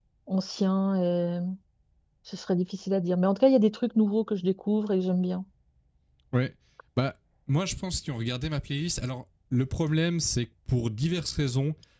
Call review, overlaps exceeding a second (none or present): none